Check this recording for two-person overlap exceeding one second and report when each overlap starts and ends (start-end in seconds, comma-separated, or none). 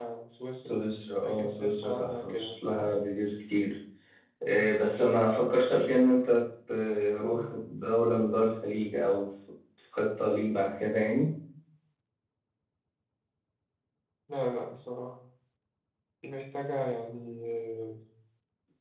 1.2-2.9